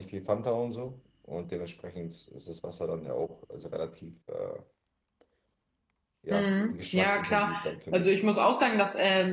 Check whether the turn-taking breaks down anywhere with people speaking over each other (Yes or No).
Yes